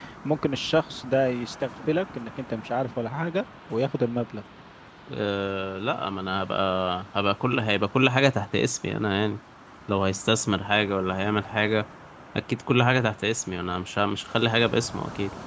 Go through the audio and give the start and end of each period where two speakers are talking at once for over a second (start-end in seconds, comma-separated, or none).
none